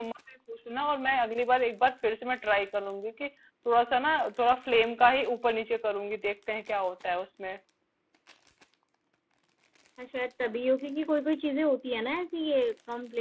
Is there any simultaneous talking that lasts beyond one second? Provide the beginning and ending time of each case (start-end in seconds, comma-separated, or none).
none